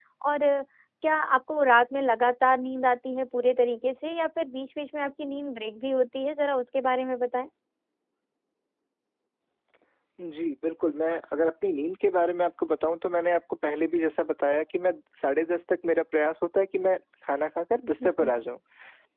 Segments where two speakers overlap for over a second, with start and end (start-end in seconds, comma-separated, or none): none